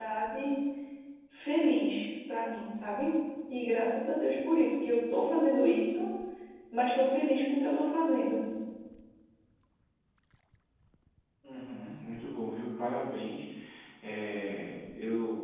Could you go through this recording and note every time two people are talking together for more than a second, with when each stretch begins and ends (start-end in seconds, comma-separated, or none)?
none